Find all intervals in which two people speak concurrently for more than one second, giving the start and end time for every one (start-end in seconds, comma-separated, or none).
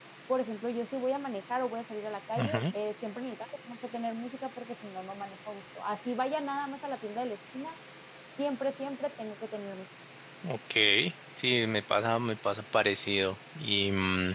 none